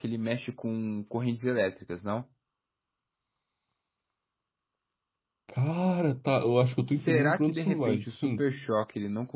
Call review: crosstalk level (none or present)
present